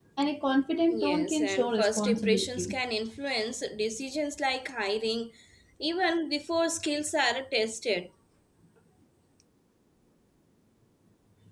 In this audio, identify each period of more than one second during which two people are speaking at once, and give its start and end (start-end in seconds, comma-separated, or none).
0.9-2.8